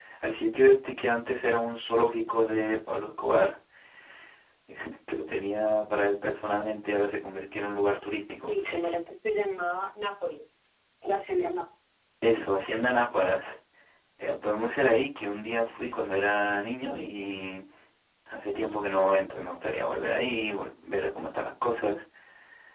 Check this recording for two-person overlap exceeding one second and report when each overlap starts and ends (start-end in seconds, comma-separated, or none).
none